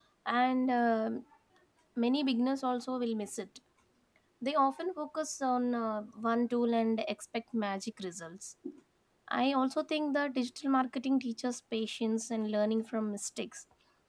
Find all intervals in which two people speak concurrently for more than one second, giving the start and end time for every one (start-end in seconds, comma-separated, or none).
none